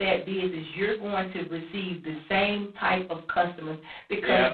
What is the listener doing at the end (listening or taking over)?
listening